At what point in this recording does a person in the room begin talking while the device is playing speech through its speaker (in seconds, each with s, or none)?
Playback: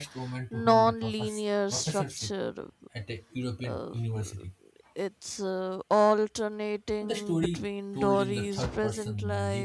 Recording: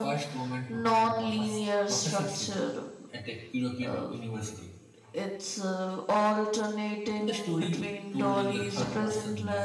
none